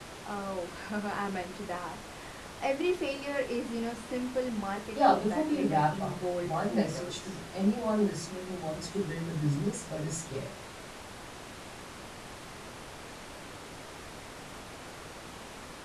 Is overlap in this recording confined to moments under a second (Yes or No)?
No